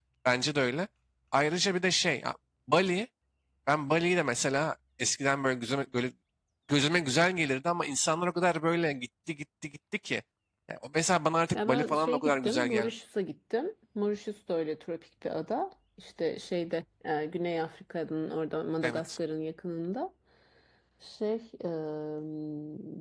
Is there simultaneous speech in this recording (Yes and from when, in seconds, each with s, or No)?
Yes, from 11.5 s